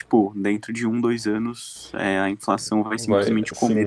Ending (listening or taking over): taking over